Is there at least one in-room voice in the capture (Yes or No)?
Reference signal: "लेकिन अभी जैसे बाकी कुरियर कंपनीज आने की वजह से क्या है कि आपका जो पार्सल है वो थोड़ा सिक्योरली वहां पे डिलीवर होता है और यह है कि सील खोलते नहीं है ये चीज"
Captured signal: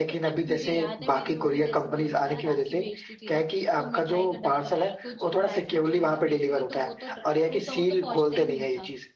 Yes